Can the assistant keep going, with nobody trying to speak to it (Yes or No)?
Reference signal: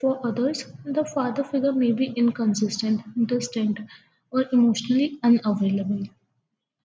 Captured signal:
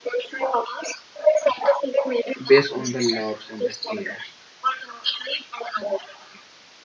No